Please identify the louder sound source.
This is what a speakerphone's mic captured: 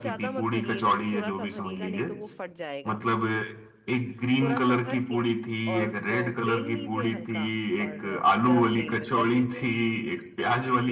echo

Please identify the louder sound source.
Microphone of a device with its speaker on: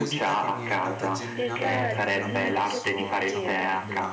echo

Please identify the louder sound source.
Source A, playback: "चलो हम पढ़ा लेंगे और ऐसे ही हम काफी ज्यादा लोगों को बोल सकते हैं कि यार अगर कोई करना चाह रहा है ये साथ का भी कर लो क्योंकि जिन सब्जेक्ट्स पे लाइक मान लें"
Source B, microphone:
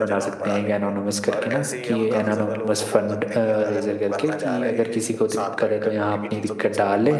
user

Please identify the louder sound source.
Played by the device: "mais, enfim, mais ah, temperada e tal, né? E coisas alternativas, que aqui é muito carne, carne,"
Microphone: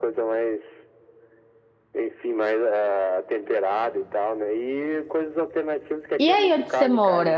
user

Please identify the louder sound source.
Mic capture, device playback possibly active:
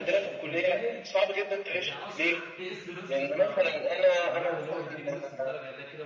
echo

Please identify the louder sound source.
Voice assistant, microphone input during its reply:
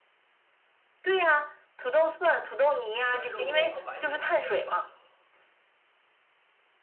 echo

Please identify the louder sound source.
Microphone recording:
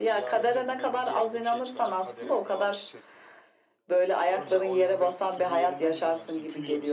echo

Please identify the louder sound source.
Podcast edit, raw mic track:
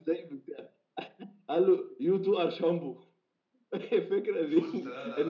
echo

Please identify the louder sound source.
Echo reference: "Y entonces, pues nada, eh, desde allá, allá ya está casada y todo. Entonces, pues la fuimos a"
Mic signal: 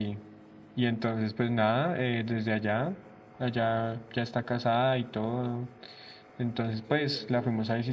echo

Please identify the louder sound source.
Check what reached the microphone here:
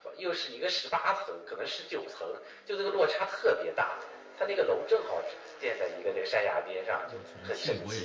echo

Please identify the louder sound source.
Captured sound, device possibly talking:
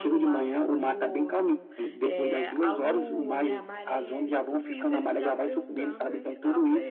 echo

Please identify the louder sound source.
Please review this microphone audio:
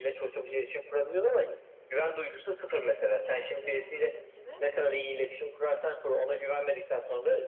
echo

